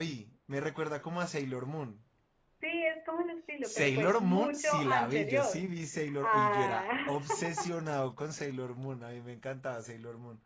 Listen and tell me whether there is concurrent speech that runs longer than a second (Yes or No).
Yes